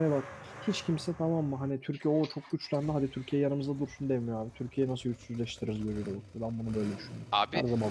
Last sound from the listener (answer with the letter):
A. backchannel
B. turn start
B